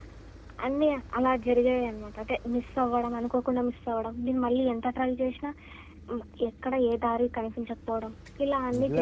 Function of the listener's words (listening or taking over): taking over